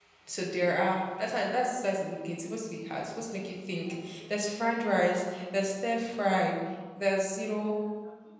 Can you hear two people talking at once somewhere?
No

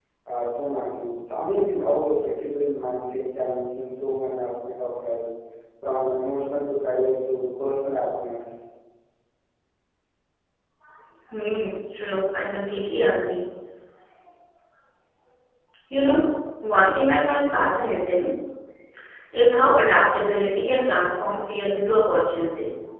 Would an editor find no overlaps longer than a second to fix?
Yes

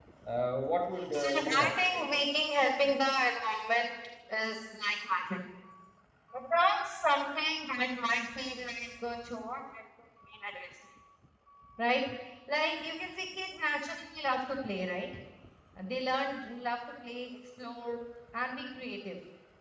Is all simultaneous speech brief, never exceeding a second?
No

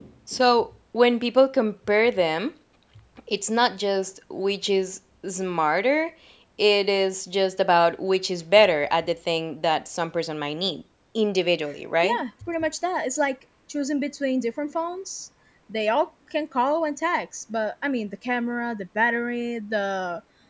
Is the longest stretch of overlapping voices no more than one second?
Yes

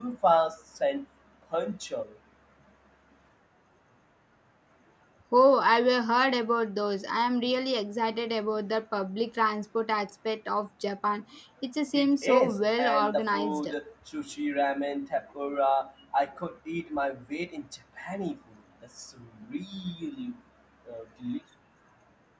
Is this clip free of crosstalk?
No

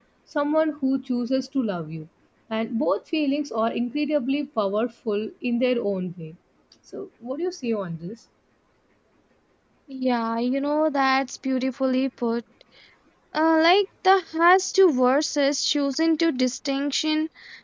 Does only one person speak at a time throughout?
Yes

